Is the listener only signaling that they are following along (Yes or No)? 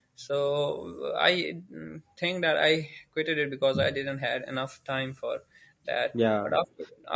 Yes